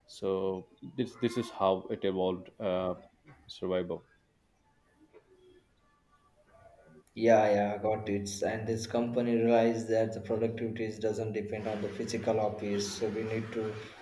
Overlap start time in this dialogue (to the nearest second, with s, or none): none